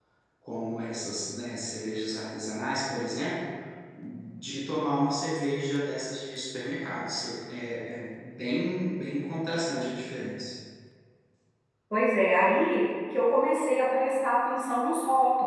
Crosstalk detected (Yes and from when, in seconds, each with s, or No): No